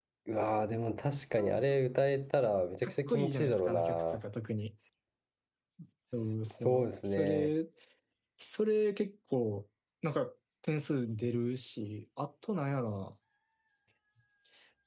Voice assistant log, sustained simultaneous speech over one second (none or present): present